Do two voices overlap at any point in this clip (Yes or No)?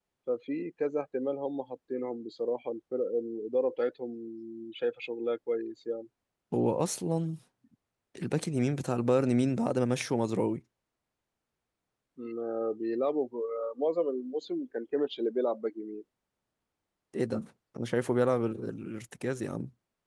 No